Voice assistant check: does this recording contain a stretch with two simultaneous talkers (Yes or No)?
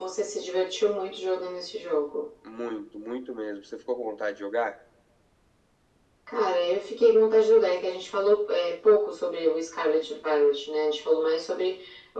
No